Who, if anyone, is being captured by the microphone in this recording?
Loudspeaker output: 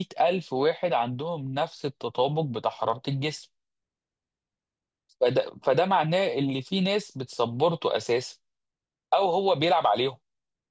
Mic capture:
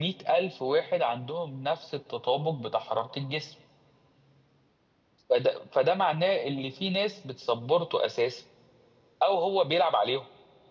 echo only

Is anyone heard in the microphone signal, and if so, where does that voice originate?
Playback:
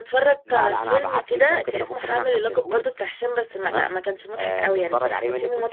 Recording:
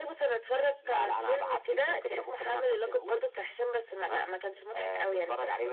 echo only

